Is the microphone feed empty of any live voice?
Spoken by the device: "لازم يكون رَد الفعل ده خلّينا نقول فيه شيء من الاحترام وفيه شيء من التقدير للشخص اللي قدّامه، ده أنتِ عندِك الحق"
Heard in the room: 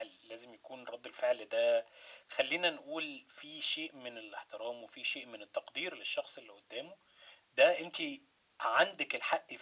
Yes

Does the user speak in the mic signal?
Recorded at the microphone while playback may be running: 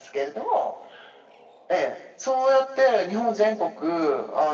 No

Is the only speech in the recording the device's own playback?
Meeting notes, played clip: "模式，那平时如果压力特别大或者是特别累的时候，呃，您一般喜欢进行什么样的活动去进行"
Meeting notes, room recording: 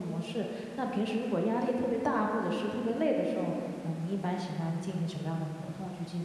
Yes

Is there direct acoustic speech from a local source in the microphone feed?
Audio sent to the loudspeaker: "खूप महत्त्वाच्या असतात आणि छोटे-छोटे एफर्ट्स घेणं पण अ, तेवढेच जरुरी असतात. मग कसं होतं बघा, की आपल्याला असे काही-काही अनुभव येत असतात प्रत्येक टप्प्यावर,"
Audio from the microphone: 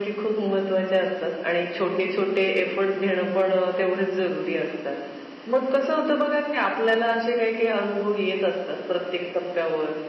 No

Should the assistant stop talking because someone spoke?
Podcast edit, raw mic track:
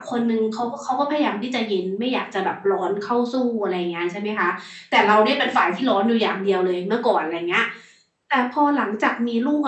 No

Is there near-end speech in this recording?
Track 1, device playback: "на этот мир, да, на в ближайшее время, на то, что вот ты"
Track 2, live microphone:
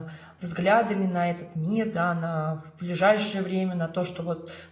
No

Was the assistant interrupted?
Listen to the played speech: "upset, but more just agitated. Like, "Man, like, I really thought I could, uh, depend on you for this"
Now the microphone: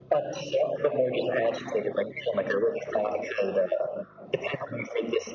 No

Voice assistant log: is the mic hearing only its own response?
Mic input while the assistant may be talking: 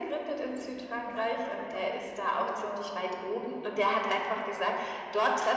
No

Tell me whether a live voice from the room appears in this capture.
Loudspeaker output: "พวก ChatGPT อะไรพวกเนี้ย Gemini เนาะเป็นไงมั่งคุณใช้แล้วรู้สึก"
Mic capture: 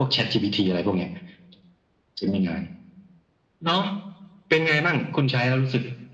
No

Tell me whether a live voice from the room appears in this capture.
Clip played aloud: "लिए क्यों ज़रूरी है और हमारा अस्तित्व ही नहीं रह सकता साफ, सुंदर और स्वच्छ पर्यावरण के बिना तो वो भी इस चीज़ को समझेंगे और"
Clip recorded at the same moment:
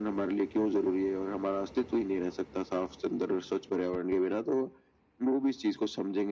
No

